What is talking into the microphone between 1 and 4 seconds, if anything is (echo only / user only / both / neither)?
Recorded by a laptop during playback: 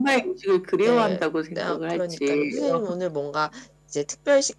both